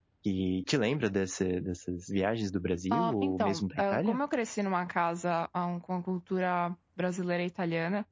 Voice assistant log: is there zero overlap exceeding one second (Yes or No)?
No